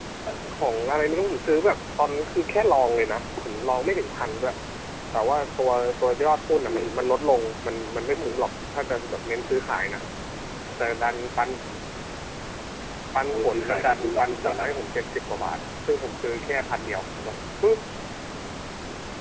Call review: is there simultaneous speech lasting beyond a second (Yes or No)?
Yes